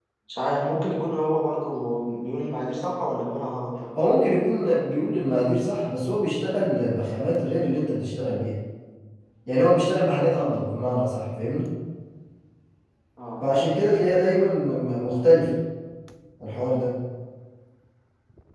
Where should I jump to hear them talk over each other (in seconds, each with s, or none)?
none